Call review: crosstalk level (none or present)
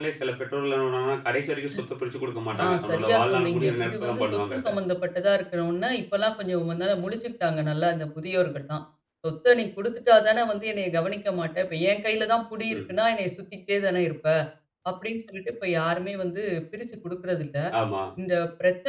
present